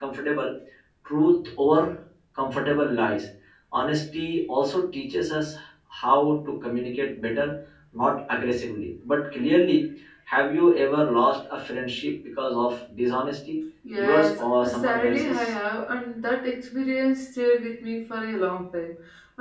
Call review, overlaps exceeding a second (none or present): present